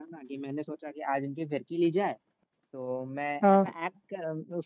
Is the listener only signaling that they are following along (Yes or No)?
Yes